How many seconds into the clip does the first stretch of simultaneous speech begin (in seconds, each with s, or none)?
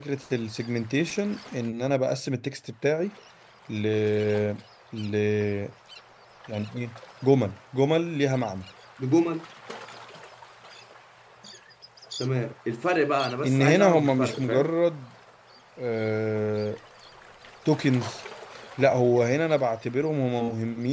13.4 s